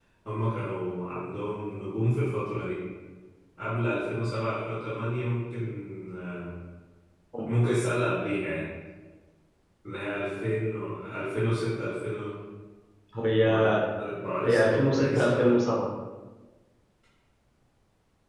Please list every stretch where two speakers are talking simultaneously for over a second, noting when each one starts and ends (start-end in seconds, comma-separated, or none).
14.4-15.7